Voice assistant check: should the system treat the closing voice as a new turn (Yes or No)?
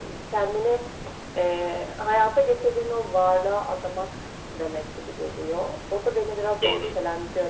No